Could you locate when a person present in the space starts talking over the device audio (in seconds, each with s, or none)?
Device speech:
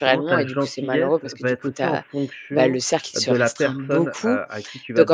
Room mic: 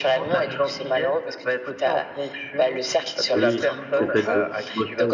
3.3 s